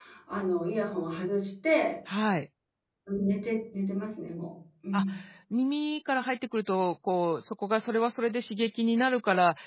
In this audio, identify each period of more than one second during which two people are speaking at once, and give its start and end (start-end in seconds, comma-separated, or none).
none